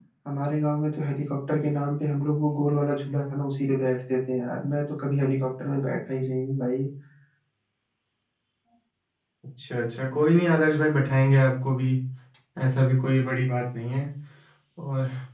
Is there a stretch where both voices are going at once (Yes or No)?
No